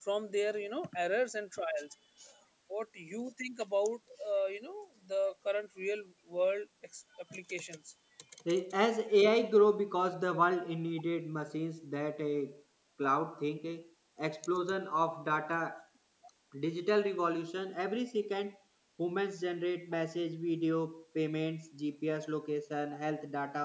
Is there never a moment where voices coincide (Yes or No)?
Yes